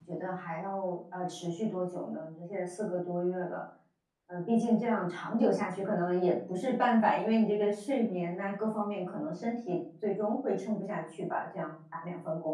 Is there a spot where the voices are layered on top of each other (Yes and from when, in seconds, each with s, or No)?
No